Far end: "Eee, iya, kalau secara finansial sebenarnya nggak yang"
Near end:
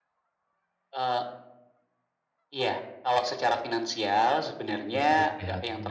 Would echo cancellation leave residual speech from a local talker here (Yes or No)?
Yes